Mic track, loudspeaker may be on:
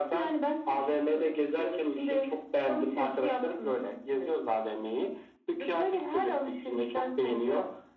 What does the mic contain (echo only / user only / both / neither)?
echo only